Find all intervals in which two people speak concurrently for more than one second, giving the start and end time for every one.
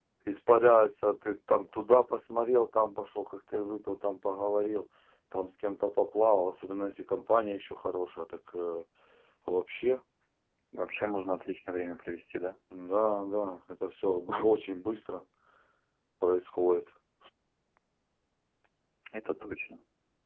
none

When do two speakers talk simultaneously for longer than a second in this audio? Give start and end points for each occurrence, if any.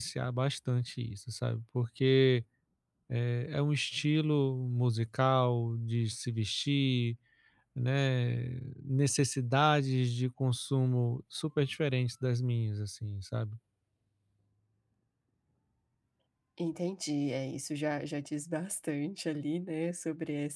none

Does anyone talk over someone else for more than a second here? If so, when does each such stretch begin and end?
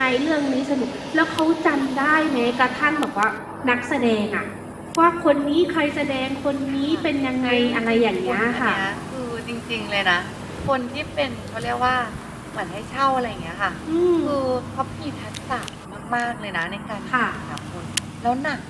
7.4-8.7

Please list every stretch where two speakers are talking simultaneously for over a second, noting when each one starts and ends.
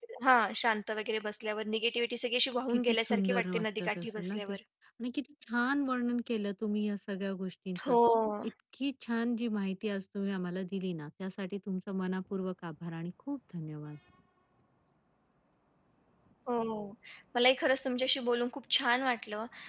2.7-4.5

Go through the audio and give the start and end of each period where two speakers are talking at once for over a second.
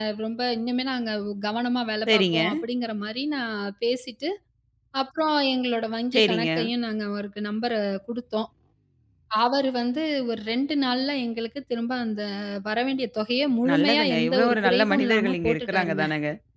13.7-16.0

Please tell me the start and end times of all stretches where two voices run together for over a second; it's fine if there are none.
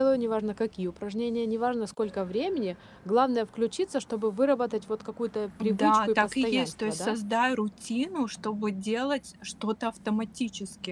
5.6-7.1

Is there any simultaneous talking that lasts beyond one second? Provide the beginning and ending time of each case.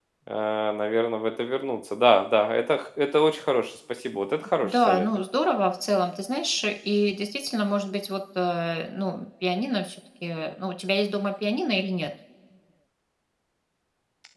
none

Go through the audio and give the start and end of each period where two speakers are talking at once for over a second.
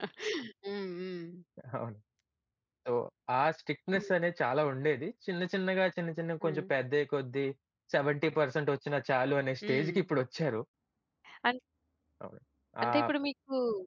none

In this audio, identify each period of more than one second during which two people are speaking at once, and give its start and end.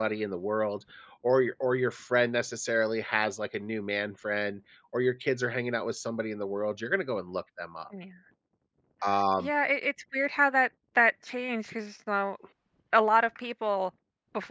none

